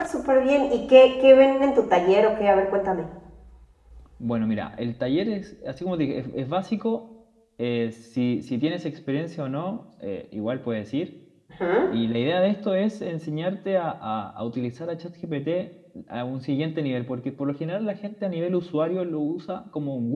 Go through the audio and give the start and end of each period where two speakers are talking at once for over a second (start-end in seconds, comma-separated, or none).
none